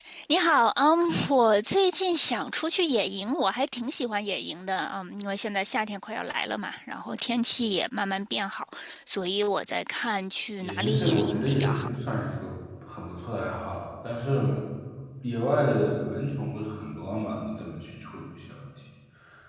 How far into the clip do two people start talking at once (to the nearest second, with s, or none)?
11 s